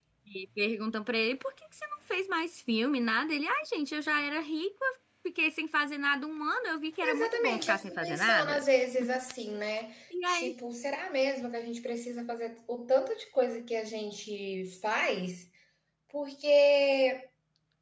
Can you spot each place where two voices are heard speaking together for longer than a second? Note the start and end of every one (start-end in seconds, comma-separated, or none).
7.0-8.6